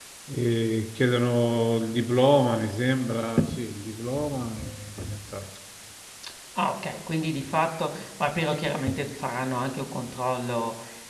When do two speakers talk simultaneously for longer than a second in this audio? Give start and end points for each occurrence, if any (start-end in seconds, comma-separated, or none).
none